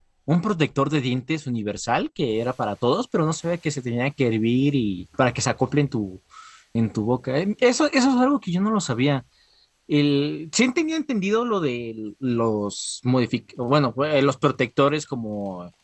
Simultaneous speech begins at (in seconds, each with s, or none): none